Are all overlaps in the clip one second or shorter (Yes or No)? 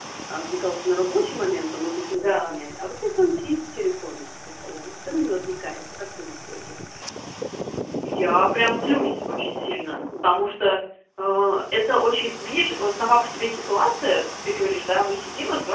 Yes